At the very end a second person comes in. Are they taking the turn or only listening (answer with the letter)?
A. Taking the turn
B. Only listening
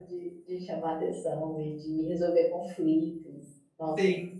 A